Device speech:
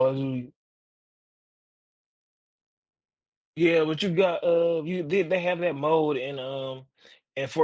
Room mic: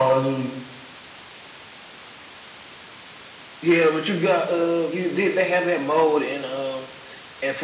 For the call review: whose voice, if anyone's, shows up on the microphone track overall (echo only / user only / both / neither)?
echo only